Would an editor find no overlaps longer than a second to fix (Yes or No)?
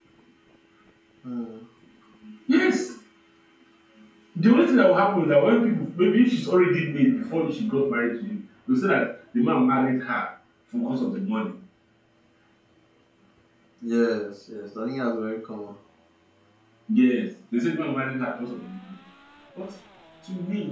Yes